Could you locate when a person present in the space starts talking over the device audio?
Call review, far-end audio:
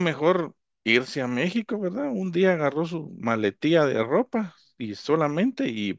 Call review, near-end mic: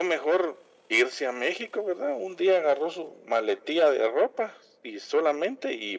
none

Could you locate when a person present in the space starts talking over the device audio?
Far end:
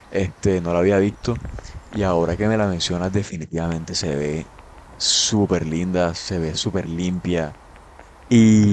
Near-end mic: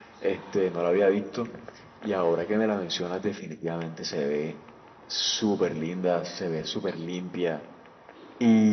none

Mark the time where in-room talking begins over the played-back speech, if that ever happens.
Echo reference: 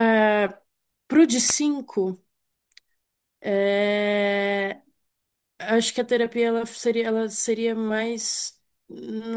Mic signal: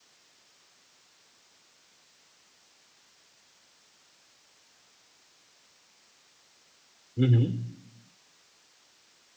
7.2 s

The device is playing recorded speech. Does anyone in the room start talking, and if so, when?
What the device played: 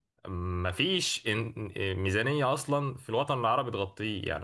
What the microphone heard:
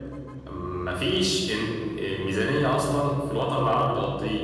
none

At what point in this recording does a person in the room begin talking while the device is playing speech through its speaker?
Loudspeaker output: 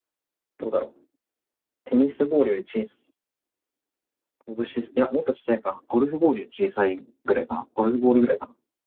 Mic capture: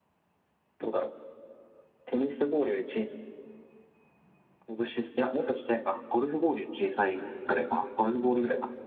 none

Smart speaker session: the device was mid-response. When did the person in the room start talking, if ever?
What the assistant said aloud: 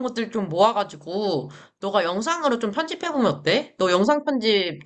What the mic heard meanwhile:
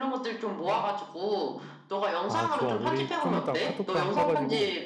2.3 s

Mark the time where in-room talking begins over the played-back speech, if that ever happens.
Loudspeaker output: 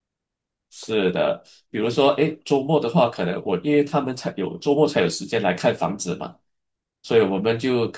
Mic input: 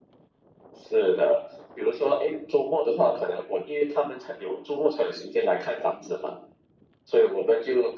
none

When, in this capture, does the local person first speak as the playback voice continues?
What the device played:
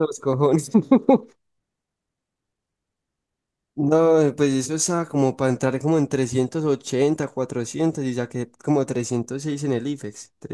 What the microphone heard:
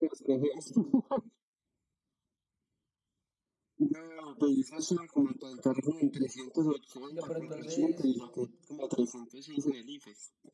7.1 s

